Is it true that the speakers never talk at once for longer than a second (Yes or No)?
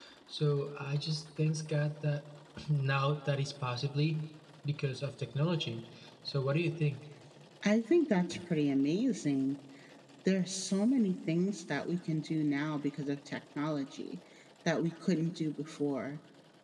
Yes